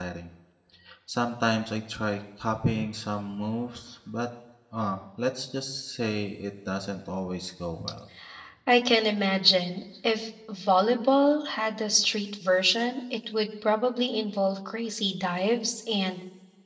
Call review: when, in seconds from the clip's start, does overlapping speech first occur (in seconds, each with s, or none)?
none